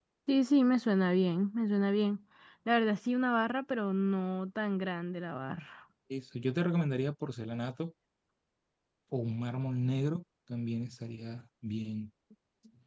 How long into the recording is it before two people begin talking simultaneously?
none

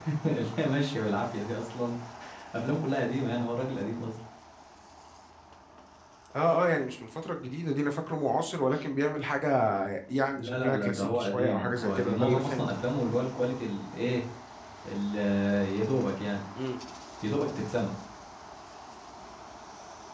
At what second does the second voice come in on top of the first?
10.3 s

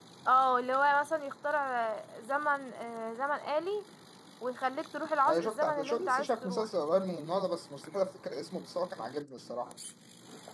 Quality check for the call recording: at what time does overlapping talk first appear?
5.2 s

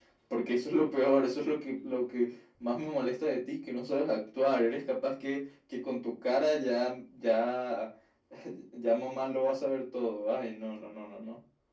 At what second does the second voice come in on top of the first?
none

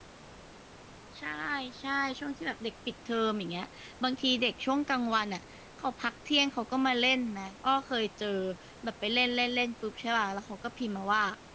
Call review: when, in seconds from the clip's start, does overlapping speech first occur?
none

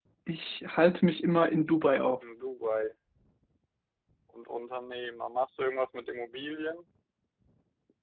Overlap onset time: none

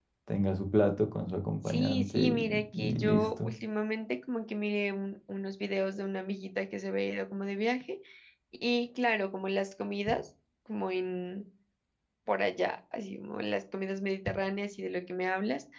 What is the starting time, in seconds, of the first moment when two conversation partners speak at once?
1.7 s

